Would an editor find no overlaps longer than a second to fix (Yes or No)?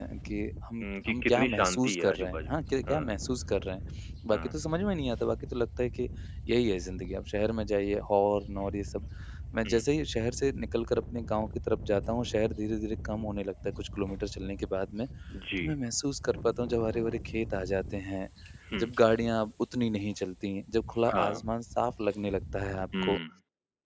No